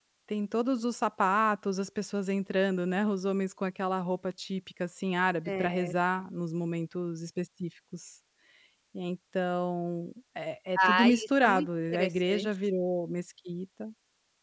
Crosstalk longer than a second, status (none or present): present